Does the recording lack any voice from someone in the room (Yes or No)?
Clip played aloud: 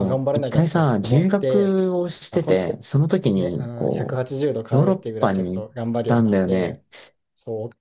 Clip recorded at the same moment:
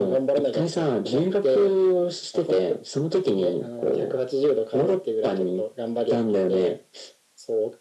Yes